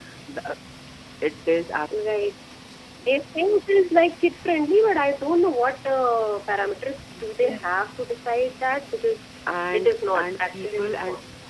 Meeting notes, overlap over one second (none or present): present